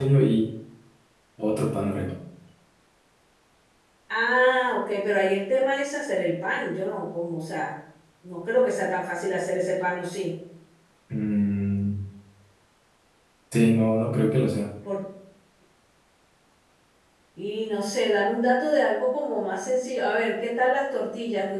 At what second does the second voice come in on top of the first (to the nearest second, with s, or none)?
none